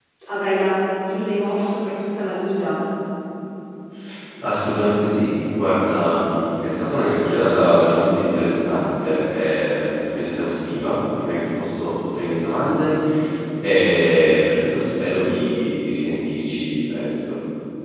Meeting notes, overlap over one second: none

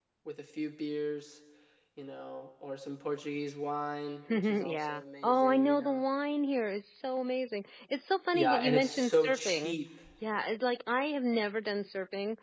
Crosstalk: present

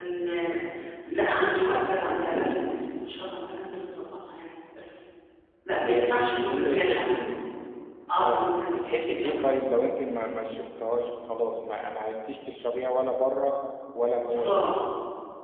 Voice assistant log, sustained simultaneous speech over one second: present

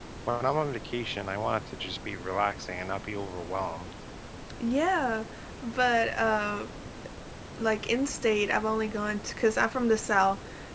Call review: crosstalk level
none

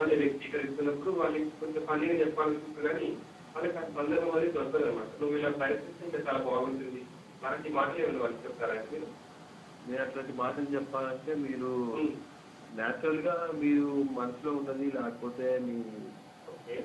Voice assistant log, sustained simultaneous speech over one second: none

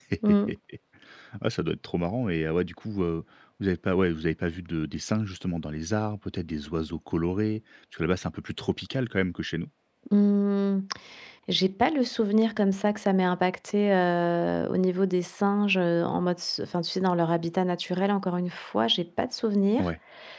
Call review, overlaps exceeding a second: none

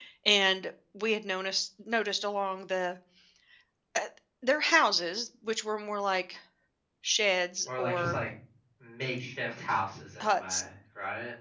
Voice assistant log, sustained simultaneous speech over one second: none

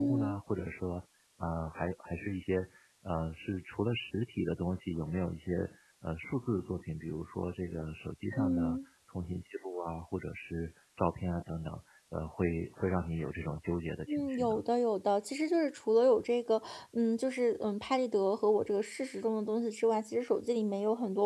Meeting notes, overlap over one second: none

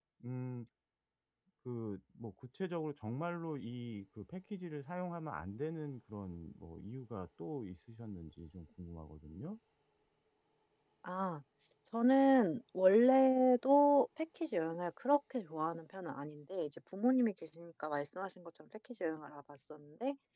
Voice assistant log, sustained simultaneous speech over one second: none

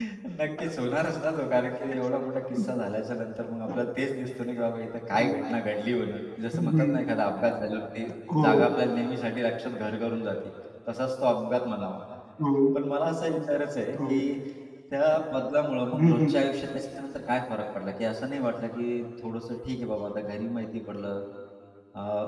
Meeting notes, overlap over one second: none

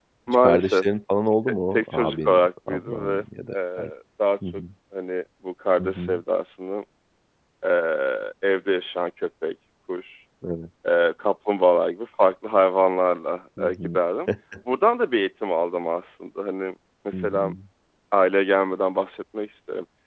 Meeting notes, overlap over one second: present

